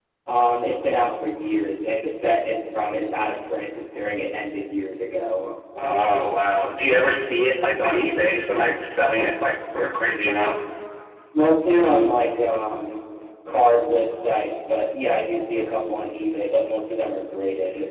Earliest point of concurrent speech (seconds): none

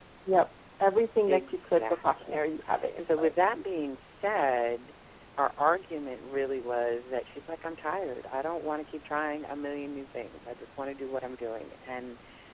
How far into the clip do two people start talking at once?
1.3 s

